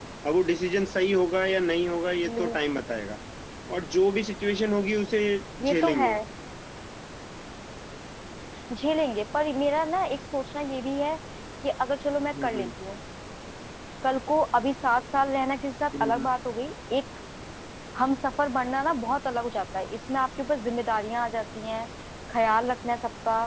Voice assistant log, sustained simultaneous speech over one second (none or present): none